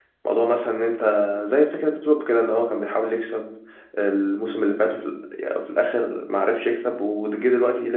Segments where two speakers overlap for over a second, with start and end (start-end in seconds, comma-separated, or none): none